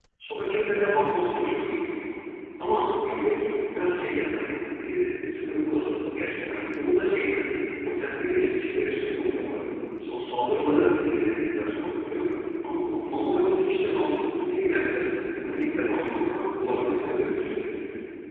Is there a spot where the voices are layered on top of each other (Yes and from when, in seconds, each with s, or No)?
No